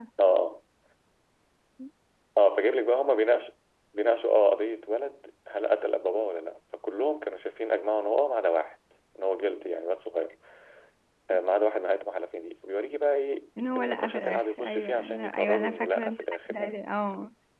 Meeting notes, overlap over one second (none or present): present